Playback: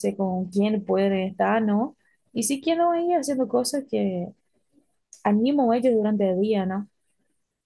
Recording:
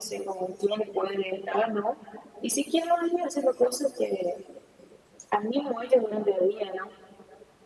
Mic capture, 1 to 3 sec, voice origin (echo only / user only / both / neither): echo only